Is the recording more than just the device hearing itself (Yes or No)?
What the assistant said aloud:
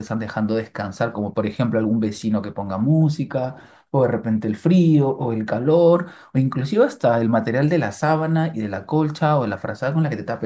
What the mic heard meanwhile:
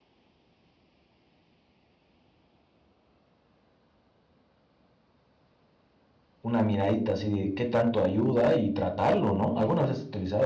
Yes